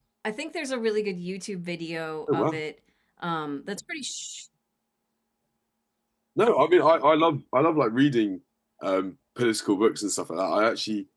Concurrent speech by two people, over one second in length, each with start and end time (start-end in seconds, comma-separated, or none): none